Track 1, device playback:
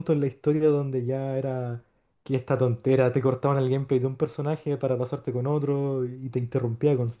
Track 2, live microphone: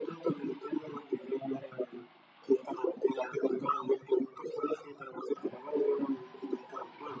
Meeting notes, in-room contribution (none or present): none